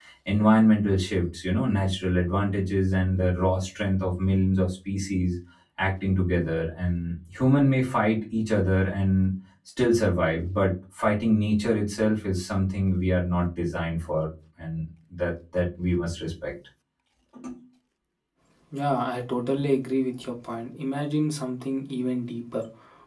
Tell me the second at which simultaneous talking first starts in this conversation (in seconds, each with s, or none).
none